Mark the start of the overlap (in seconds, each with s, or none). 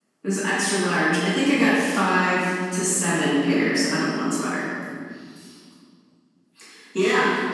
none